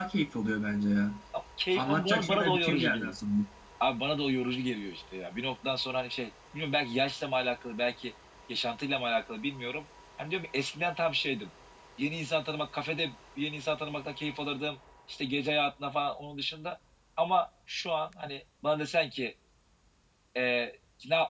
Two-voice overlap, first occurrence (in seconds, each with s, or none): 1.8 s